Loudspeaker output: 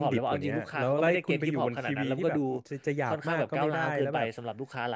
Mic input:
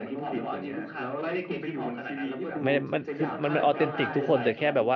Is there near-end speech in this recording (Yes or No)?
Yes